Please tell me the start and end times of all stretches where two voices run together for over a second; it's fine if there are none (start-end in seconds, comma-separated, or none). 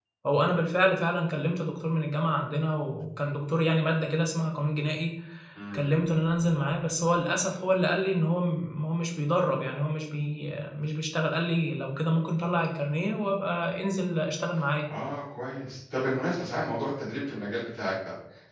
none